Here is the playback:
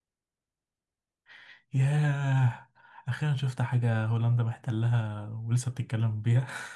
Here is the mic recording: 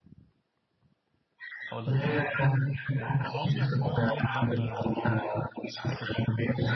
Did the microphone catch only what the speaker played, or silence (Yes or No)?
No